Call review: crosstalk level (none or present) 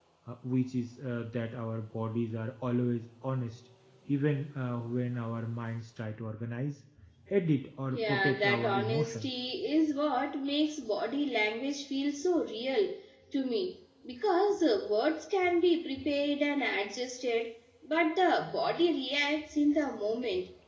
present